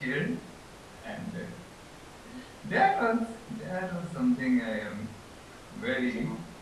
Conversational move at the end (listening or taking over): listening